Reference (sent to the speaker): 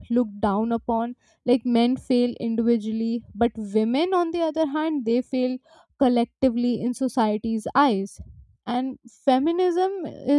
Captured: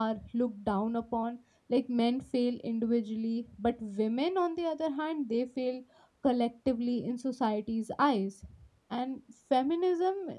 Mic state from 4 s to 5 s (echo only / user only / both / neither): echo only